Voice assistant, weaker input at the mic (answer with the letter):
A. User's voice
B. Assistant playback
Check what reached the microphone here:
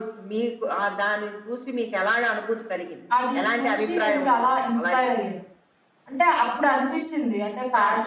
B